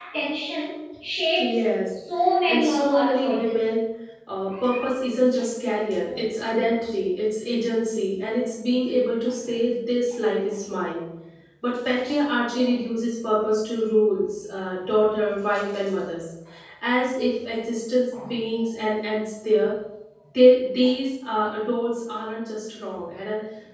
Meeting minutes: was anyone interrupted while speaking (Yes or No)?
Yes